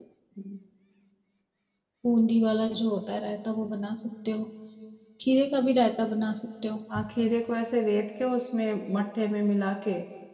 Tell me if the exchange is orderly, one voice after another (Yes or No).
Yes